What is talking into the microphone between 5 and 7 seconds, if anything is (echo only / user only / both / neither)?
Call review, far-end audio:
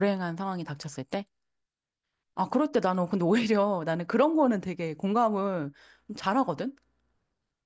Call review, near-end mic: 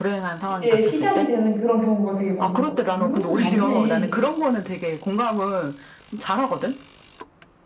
echo only